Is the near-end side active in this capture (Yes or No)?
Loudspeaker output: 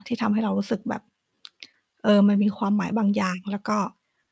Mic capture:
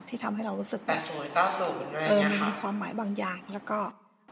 Yes